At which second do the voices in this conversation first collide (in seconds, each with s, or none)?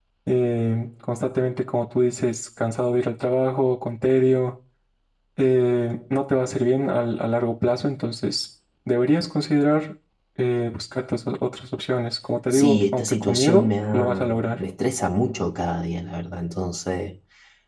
12.5 s